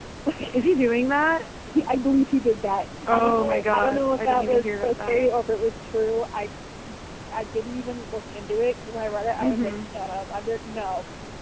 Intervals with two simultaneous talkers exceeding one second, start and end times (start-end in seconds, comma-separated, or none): 3.1-5.3